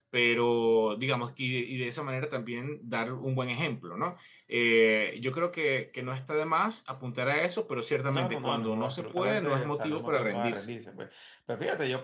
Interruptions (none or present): present